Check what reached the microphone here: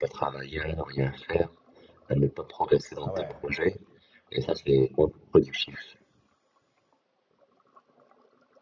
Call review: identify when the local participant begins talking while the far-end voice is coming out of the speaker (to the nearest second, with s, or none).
3 s